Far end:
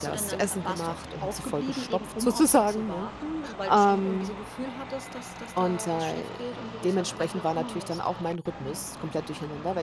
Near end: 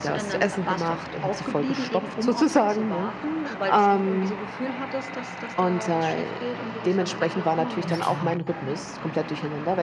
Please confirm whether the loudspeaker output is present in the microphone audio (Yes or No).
Yes